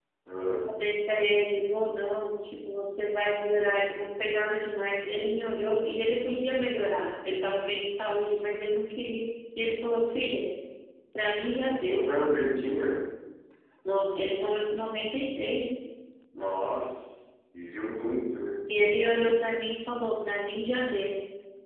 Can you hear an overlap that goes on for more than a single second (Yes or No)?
No